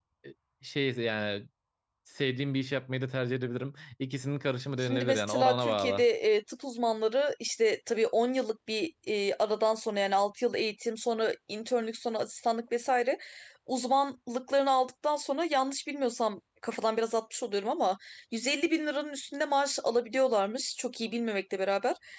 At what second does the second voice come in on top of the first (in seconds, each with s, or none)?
4.8 s